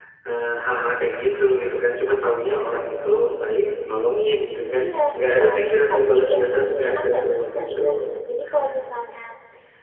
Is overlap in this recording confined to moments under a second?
No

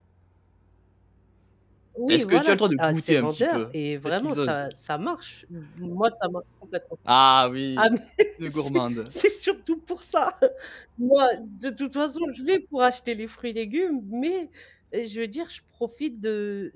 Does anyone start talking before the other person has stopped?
Yes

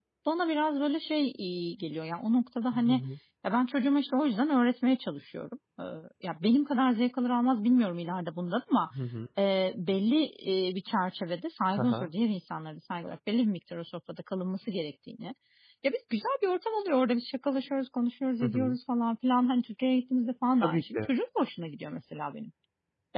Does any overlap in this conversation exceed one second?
No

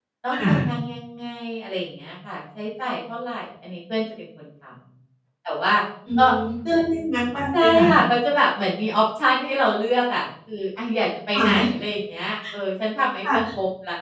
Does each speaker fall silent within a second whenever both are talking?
Yes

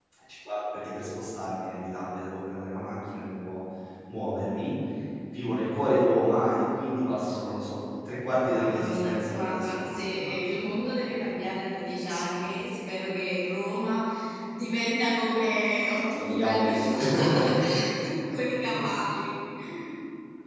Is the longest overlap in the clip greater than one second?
Yes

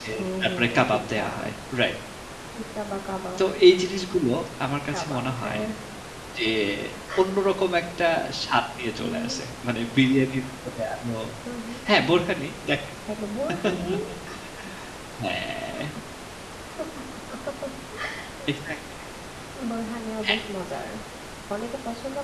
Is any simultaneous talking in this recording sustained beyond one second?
Yes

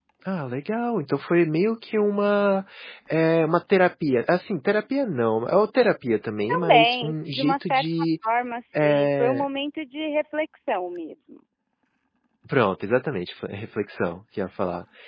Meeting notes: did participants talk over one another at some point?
Yes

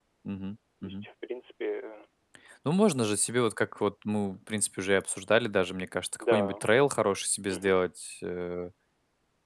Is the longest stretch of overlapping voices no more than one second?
Yes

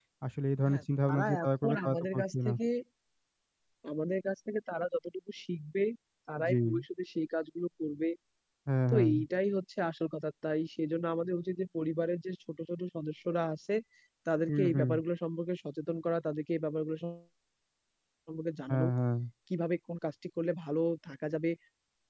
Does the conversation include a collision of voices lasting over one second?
Yes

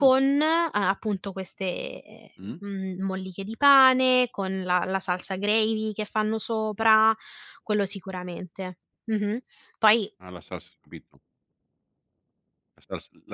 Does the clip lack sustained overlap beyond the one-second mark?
Yes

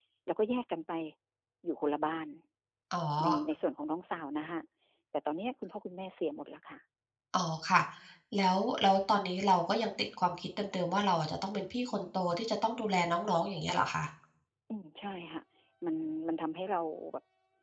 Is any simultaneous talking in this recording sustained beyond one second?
No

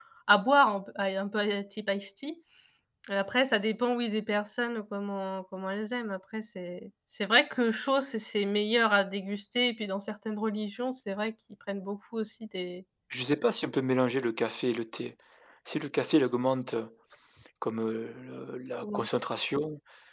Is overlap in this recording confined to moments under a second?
Yes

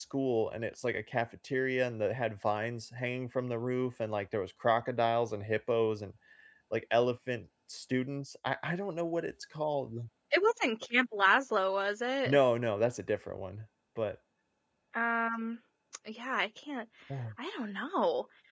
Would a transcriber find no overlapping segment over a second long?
Yes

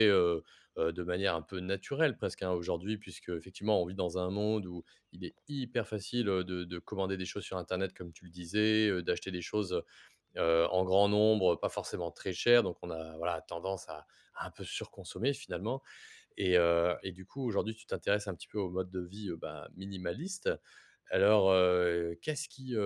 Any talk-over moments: No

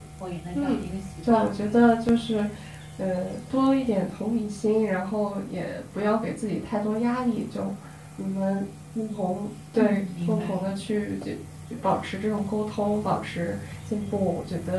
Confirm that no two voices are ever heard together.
No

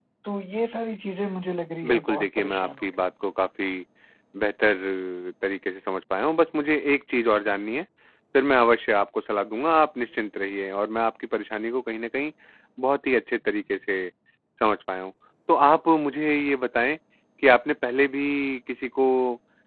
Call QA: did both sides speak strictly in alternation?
No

